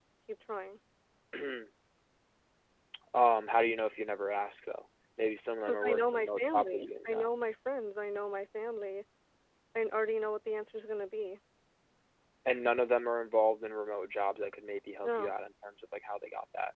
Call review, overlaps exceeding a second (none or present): present